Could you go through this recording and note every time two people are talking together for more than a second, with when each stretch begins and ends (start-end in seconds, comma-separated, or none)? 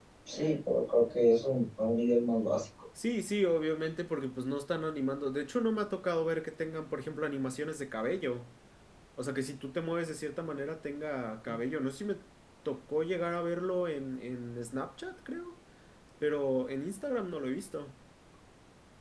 none